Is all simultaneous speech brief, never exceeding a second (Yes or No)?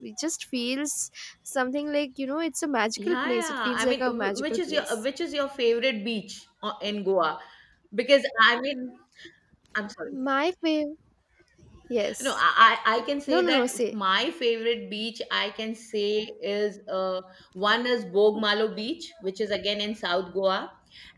No